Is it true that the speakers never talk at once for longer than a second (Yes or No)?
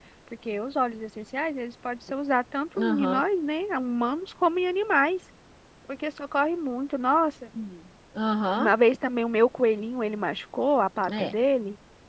Yes